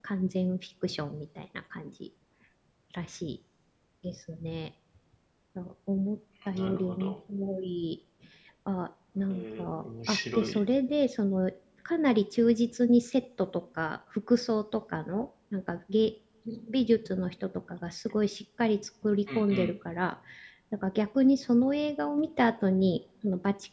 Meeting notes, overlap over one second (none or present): present